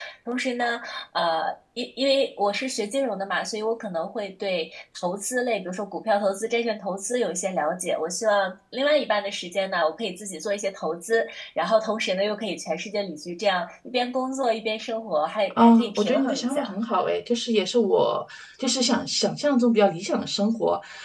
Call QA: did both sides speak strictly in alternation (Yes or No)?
No